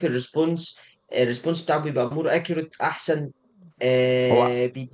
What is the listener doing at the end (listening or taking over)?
listening